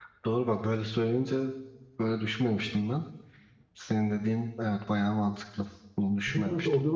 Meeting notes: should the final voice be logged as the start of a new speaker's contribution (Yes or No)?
Yes